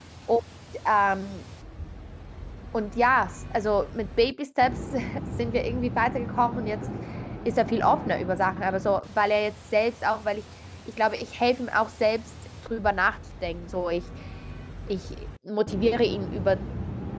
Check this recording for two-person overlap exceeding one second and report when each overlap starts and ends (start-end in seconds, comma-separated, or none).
none